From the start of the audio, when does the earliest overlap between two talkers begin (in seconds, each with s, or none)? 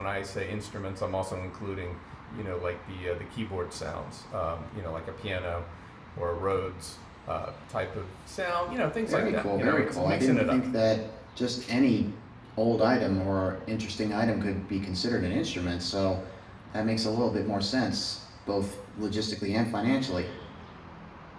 9.0 s